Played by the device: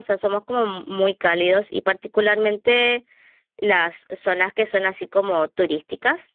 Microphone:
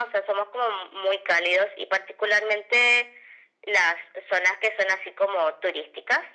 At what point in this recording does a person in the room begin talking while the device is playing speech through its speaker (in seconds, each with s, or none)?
none